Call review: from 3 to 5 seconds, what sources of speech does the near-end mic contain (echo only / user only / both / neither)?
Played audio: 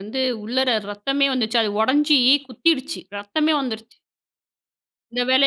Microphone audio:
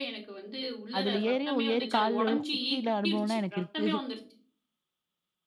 both